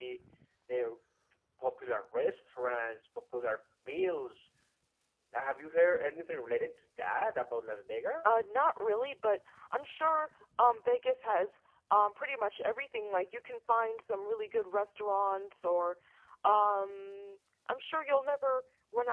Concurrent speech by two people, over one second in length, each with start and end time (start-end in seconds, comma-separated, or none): none